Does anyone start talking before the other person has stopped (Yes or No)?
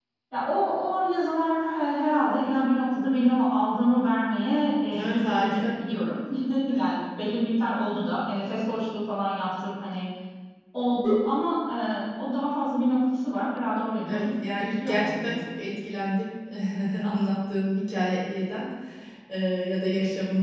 Yes